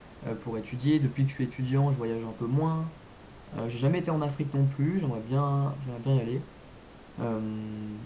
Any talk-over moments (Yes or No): No